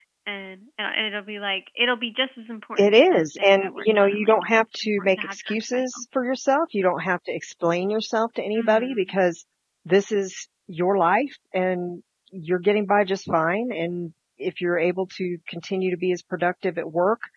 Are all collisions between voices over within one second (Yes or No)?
No